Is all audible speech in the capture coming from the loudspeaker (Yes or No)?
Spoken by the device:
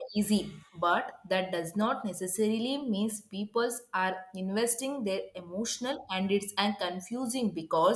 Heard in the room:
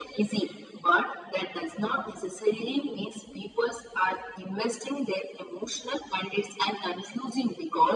Yes